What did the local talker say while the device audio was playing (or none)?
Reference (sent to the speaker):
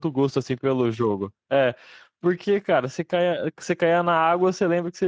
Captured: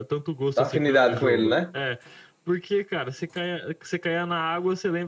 tá afinidade com ele, né?